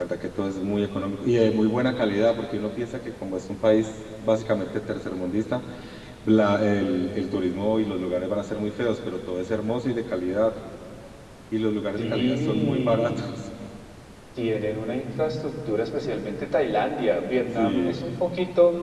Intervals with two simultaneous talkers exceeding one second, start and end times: 12.0-13.2

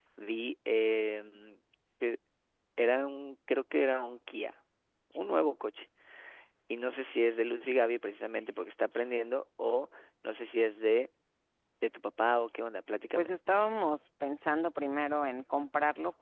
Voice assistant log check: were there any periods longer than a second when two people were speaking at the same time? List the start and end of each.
none

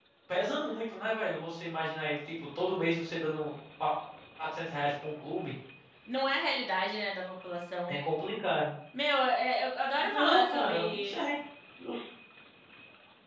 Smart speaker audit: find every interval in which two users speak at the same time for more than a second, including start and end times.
10.0-11.2

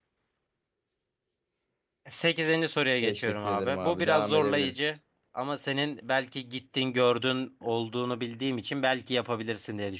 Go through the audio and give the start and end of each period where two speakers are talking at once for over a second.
3.0-4.9

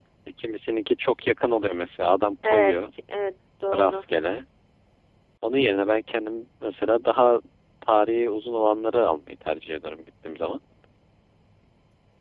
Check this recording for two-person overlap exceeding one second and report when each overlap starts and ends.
none

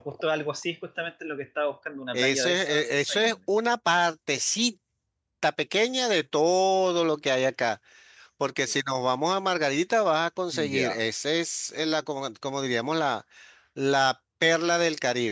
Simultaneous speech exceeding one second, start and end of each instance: 2.1-3.4

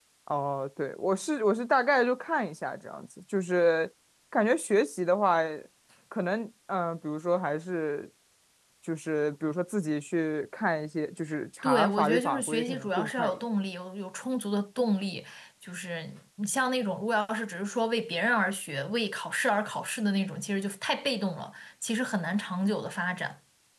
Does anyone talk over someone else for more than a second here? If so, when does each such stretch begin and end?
11.6-13.4

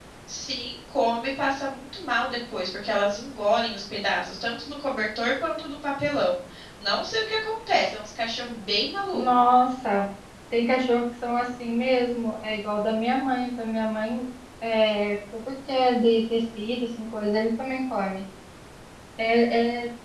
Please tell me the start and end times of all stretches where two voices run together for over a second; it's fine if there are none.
none

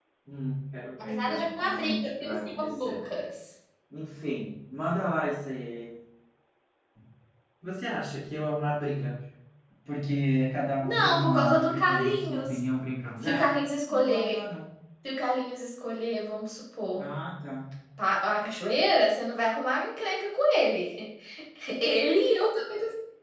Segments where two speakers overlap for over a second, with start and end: 1.1-3.0, 10.8-12.5

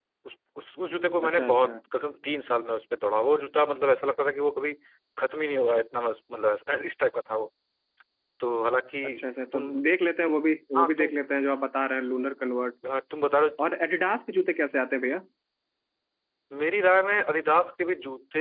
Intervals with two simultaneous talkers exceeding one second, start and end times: none

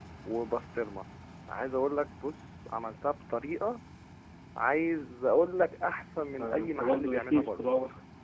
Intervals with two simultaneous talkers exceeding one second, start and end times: 6.3-7.7

